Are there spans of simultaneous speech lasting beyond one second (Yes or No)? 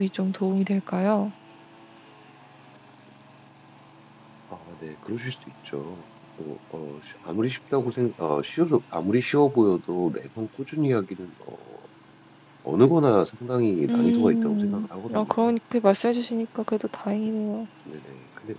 Yes